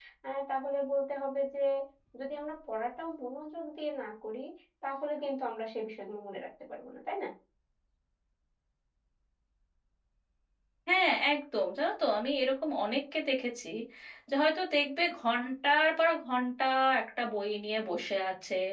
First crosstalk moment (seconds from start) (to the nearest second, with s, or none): none